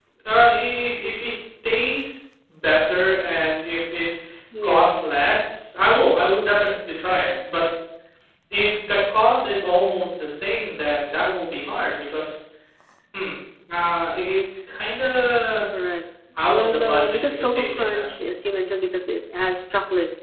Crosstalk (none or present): present